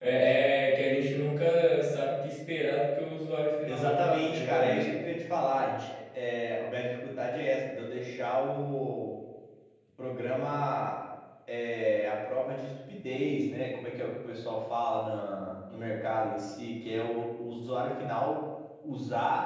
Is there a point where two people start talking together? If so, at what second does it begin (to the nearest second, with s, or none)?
4 s